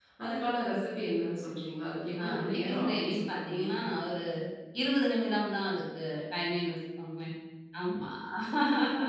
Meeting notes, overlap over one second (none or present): present